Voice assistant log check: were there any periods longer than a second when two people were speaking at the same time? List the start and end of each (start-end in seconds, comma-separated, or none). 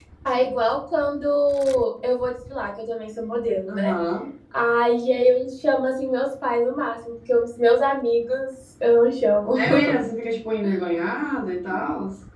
none